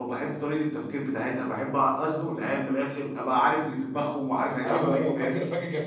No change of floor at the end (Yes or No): No